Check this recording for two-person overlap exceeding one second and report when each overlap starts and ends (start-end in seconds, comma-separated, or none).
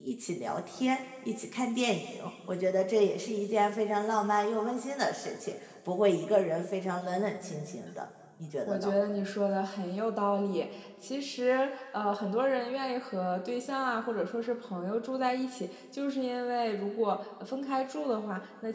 none